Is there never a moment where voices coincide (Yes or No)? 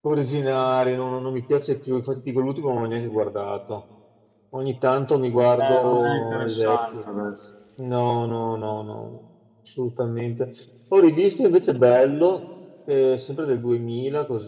No